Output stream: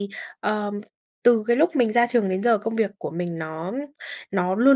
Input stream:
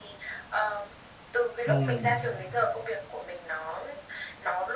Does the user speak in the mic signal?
Yes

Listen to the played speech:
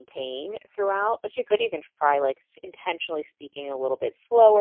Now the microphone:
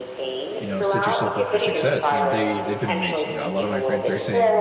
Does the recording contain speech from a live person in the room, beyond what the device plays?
Yes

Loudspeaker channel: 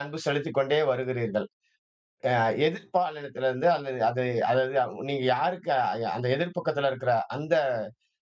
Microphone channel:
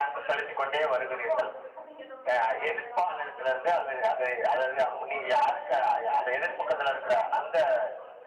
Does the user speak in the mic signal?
Yes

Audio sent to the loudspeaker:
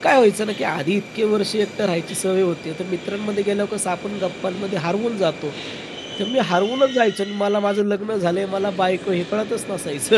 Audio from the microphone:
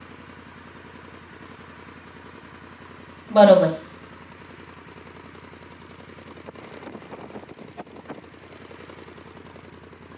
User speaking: Yes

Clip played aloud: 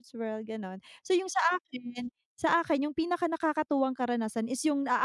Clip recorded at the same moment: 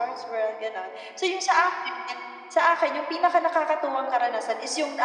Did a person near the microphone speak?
No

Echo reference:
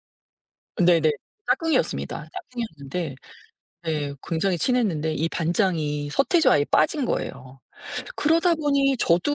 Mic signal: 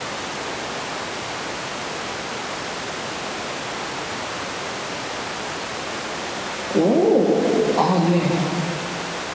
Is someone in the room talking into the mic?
Yes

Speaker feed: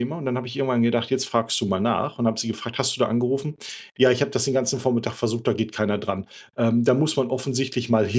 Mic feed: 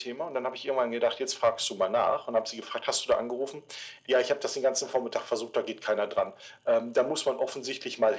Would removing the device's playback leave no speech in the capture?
Yes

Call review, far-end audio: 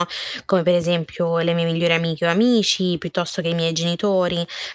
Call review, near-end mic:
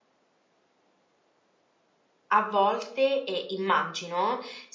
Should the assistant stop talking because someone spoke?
Yes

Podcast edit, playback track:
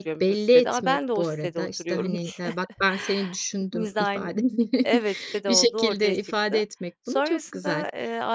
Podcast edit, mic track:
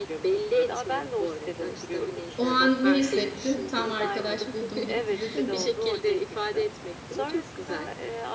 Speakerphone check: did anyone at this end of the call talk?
Yes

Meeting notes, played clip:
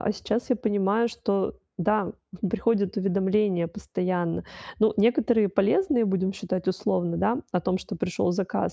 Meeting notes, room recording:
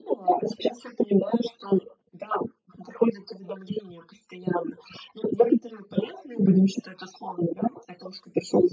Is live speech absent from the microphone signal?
Yes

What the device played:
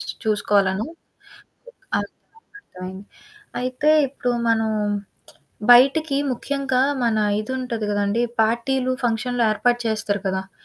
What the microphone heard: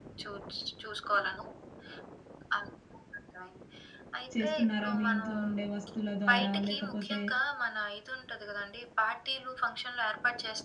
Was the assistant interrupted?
Yes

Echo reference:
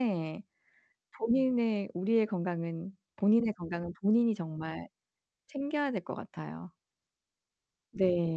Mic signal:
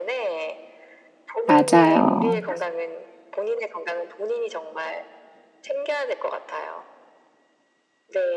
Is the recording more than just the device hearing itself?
Yes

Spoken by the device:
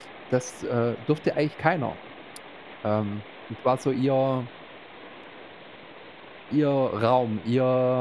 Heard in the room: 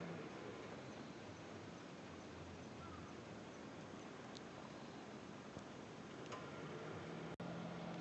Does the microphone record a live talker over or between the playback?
No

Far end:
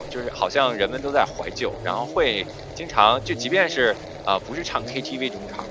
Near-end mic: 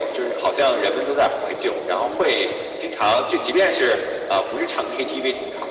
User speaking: No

